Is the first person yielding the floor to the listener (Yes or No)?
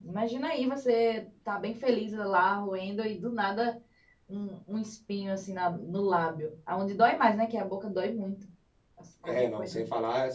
Yes